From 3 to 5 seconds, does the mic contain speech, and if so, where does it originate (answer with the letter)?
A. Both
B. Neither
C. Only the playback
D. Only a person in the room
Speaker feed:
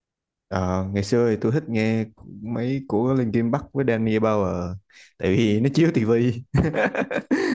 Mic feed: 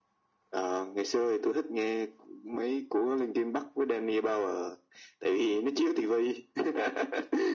C